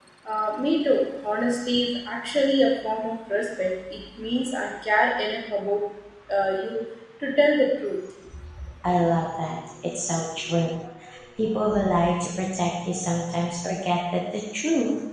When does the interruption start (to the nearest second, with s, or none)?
none